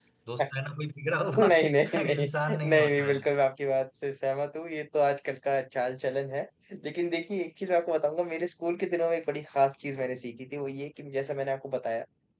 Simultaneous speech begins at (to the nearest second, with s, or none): 1 s